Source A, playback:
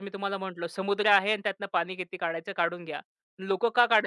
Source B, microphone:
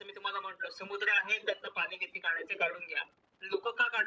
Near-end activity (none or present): none